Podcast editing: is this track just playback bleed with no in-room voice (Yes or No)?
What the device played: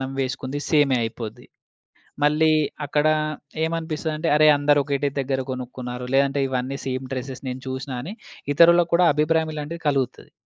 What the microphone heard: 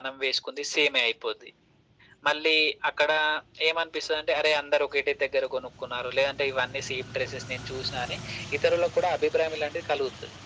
Yes